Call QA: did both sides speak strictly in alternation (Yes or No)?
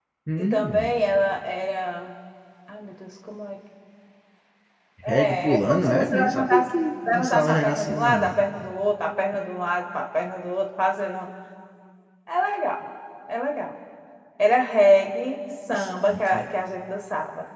No